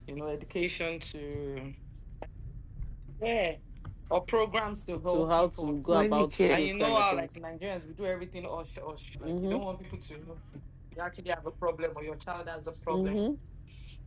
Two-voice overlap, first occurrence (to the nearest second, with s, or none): 5 s